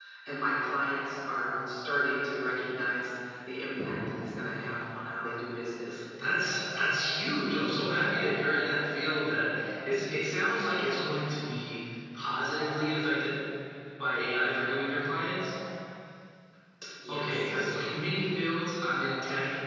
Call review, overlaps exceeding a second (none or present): none